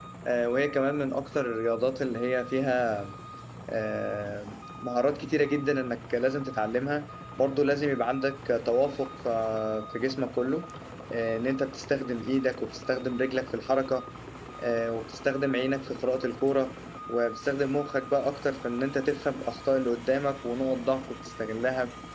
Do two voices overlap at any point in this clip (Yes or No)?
No